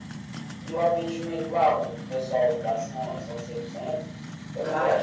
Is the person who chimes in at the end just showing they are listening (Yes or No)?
Yes